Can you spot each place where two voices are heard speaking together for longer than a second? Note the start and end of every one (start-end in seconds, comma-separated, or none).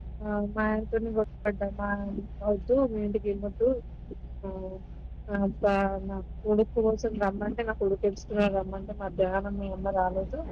none